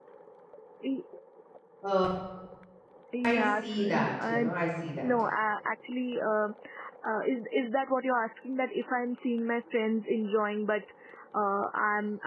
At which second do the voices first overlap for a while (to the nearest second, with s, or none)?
3 s